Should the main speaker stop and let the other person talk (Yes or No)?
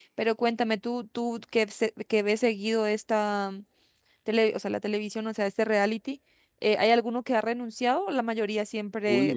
Yes